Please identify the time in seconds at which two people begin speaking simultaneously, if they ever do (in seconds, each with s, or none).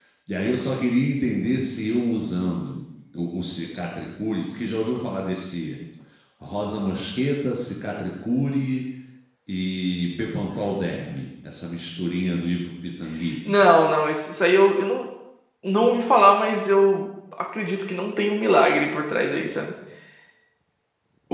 none